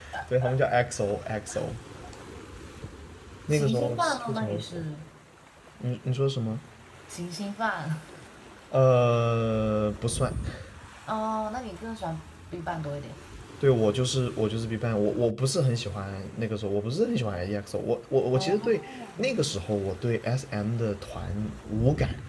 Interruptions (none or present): present